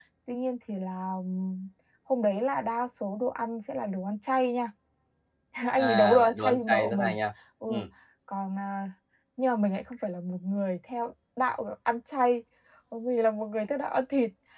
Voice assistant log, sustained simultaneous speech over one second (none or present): present